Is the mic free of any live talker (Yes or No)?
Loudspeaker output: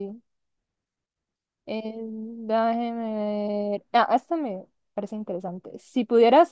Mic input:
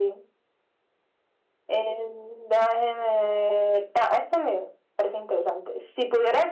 Yes